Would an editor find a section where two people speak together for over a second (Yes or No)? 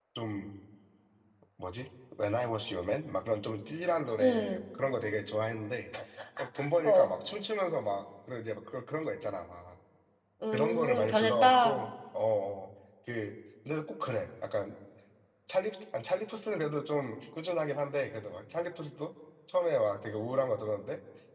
Yes